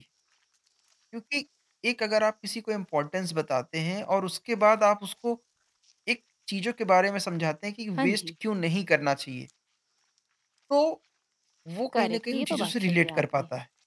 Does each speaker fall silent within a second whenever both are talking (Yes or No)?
No